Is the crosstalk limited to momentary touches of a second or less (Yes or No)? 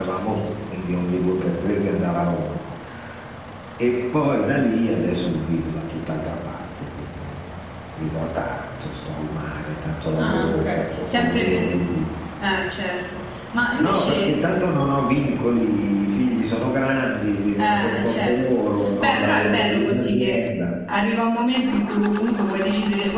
No